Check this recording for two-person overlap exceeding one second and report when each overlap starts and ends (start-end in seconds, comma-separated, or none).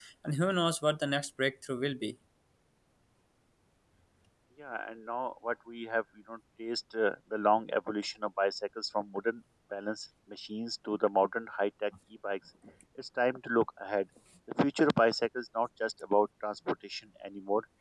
none